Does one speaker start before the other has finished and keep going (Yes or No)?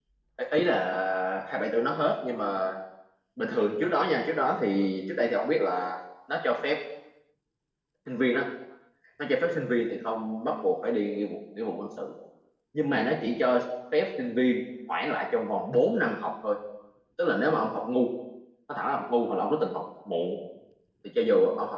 No